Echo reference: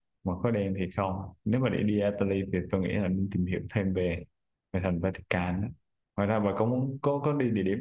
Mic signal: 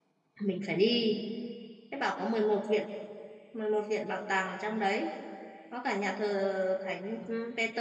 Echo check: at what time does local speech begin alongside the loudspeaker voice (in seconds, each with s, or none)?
0.4 s